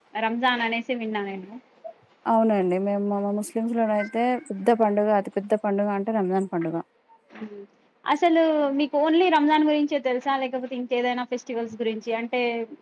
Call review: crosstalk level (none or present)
none